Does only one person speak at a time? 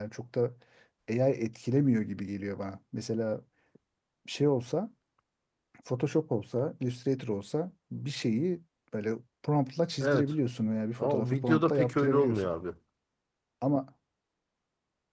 No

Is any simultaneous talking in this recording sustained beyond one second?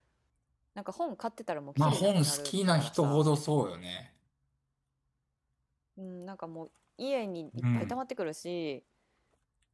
Yes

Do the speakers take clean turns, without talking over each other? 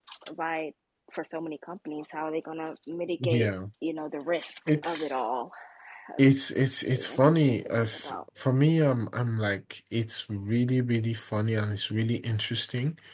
No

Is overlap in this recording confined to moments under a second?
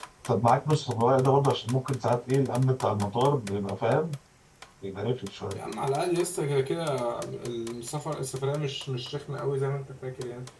Yes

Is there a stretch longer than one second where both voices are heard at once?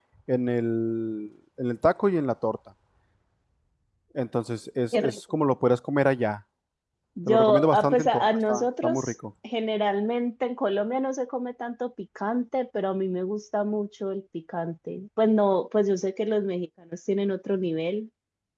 Yes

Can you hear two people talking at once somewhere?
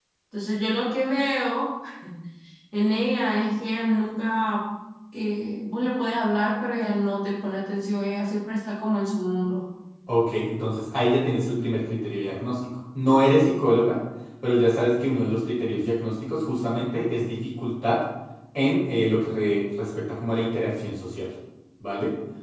No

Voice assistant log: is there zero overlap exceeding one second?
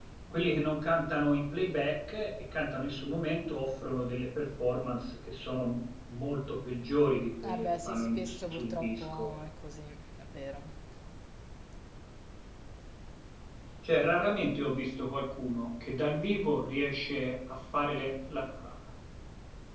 No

